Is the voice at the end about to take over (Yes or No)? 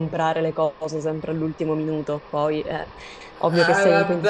Yes